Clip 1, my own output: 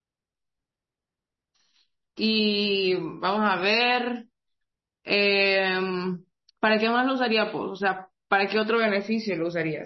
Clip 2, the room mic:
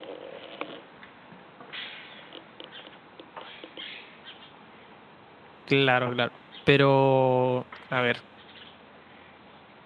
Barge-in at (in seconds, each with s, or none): 5.7 s